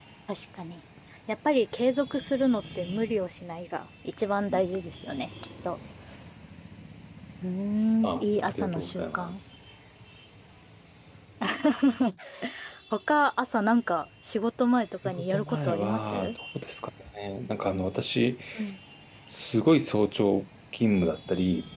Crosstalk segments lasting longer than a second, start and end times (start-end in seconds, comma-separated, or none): 8.1-9.3, 15.0-16.4